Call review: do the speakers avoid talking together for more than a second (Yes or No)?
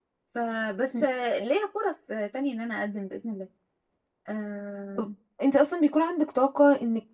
Yes